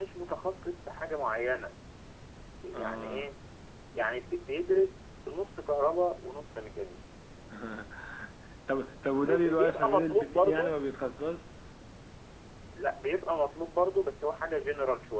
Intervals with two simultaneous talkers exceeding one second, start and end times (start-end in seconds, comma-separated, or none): 9.3-10.8